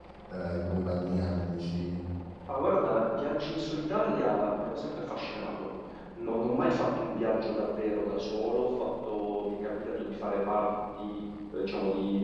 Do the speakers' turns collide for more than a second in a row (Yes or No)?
No